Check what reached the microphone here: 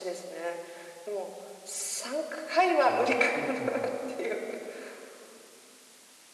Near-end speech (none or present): present